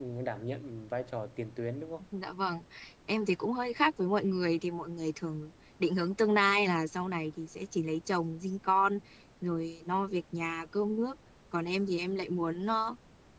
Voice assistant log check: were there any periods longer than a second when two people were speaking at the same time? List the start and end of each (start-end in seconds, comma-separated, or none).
none